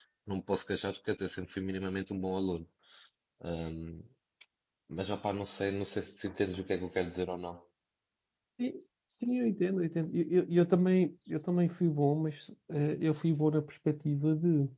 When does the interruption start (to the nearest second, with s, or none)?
none